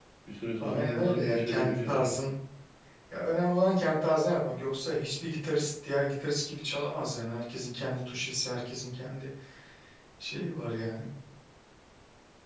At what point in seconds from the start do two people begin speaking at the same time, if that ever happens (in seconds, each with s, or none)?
0.6 s